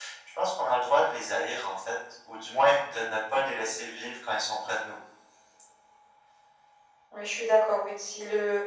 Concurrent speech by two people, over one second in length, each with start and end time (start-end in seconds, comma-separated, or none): none